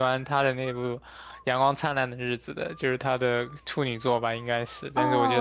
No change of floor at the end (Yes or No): No